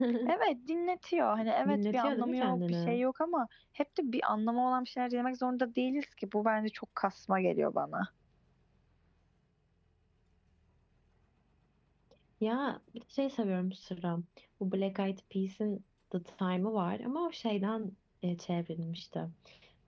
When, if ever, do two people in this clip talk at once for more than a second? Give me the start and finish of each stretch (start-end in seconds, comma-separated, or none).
1.7-3.0